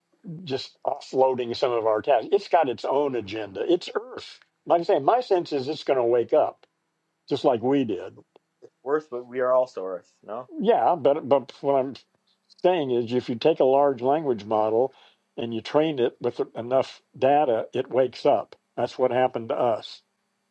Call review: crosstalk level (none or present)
none